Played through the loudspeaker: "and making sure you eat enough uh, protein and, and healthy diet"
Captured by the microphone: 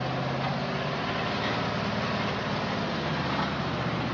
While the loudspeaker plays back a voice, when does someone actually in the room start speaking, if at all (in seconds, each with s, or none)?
none